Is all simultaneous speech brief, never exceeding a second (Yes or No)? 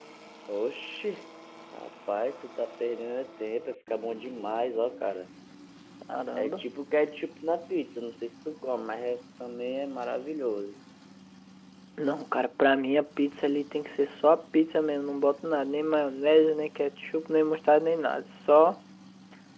Yes